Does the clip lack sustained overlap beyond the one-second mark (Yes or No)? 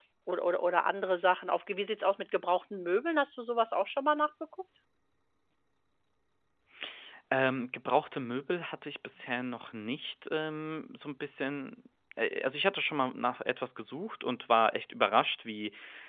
Yes